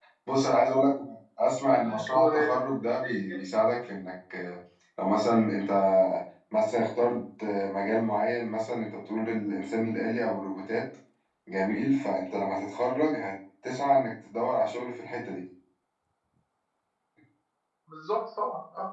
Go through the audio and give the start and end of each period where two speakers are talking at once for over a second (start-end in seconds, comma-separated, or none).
1.8-3.4